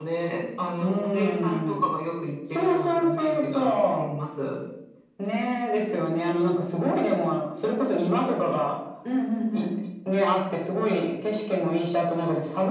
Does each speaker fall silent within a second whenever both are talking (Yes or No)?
No